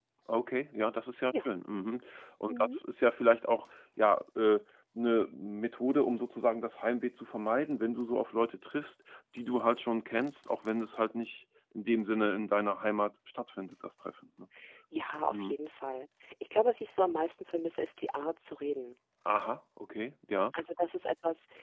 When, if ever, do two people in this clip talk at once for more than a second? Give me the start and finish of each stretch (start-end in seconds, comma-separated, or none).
none